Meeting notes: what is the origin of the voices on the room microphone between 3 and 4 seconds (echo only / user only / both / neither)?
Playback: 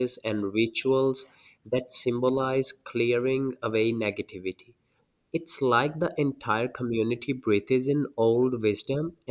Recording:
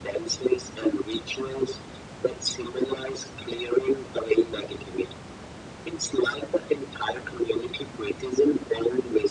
echo only